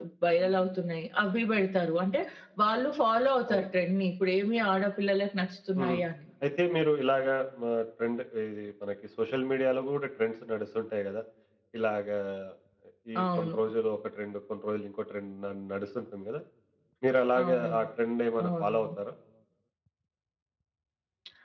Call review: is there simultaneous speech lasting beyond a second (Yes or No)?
No